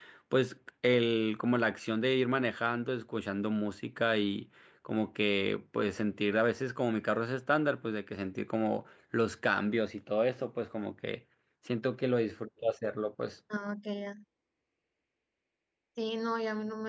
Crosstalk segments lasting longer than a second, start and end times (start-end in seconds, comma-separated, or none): none